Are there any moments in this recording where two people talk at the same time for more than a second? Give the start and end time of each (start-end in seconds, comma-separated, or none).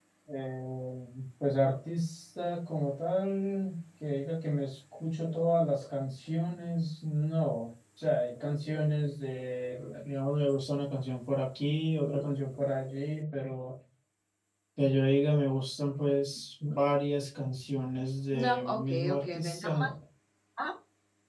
18.3-19.9